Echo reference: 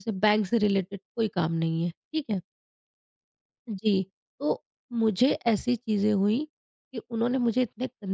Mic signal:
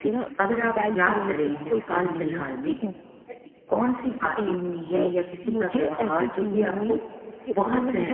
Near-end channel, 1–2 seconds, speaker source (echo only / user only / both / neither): both